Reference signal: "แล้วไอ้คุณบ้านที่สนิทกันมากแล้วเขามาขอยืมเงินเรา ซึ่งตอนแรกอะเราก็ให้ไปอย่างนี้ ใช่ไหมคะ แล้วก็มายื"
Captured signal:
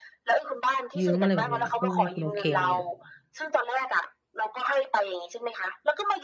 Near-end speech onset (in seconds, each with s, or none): 1.0 s